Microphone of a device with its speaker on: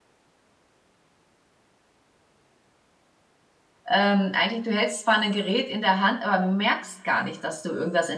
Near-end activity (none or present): present